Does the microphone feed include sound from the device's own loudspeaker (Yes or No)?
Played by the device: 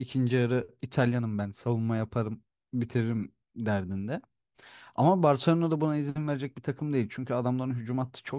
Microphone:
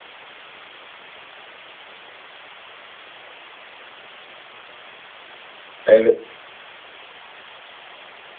No